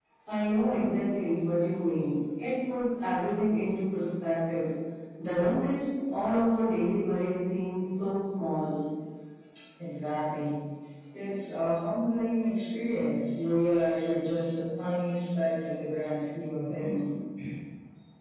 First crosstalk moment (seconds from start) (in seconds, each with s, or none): none